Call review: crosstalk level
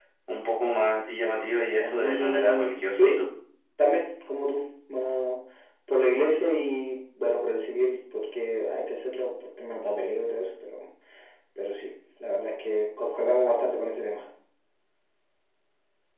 present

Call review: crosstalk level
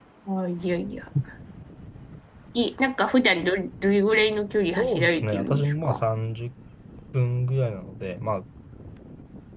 present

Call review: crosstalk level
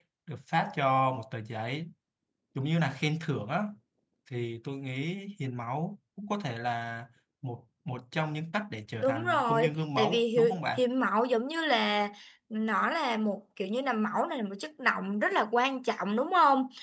present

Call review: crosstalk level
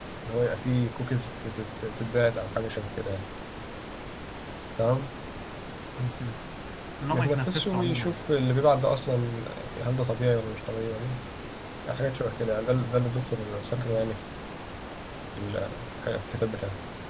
present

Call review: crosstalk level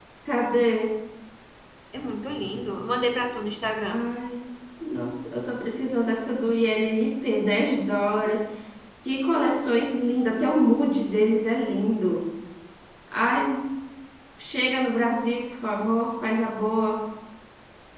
none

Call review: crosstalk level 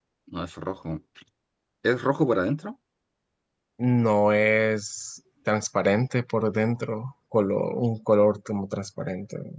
none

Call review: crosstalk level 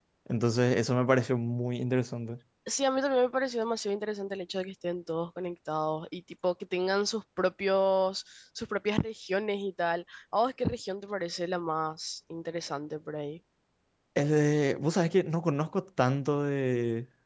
none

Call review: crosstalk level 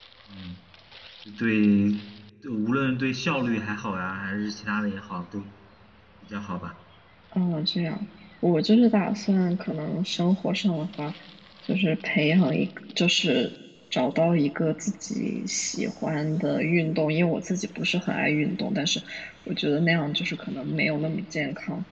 none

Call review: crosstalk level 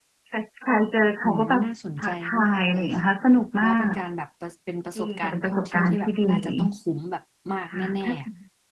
present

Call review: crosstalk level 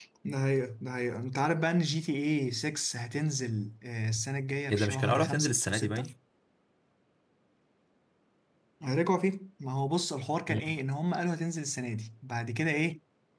present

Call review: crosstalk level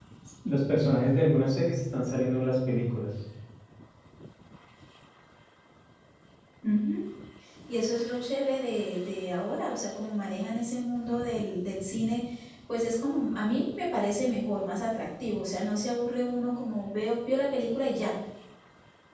none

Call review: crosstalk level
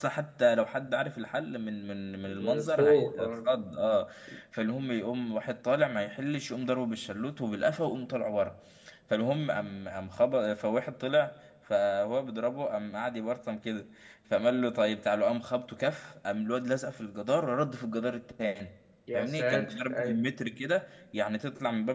present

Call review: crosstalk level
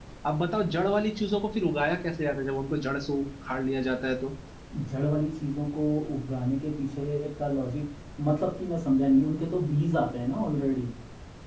none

